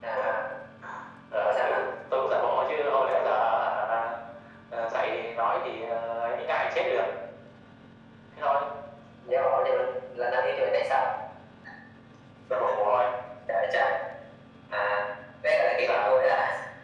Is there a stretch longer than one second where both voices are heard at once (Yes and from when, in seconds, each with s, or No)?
No